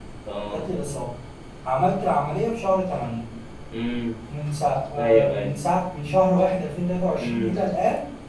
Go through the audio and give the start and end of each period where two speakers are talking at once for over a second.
none

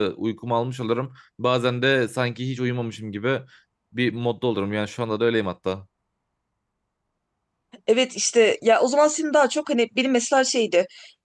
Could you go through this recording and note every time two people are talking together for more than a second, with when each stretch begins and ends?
none

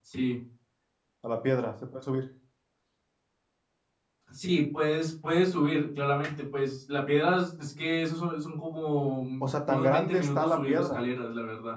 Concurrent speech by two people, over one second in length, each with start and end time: 9.7-11.0

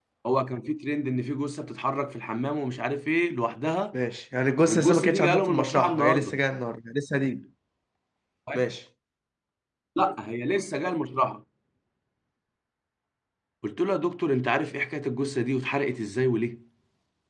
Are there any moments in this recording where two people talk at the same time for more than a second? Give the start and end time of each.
4.7-6.4

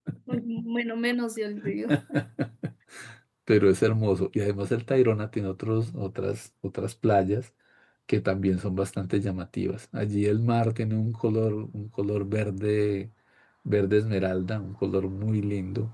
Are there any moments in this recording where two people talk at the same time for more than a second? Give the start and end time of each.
none

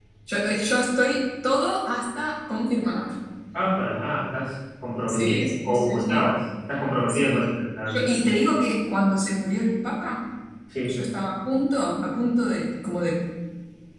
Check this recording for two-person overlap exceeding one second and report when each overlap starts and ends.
5.1-6.3

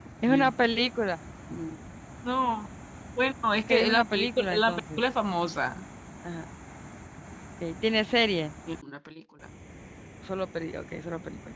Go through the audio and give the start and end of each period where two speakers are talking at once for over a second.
3.7-5.0

